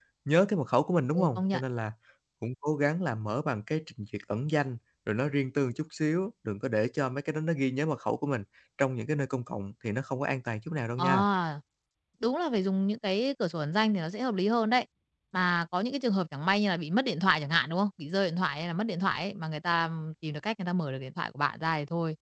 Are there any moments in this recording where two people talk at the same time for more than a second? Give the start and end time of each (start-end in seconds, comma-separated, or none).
none